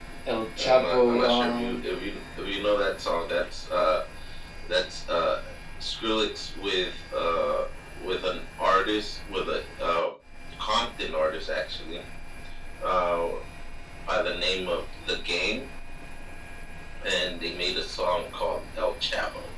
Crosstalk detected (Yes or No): Yes